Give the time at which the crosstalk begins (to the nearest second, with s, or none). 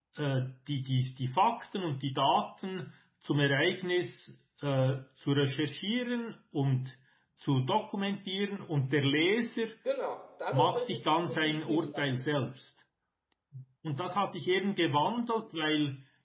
11 s